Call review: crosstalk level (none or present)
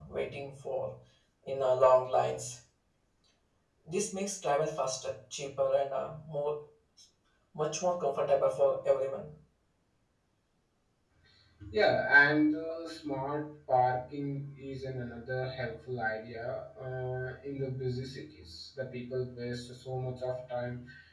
none